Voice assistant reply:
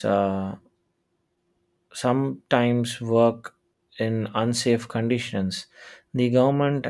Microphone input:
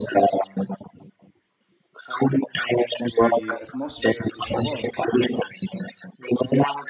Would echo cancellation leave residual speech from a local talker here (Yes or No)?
Yes